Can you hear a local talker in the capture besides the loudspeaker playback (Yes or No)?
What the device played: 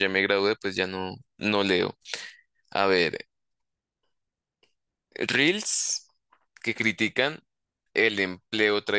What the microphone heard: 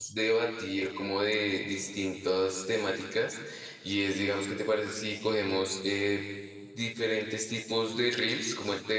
Yes